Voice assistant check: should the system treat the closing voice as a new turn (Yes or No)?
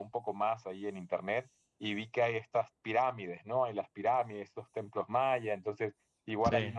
No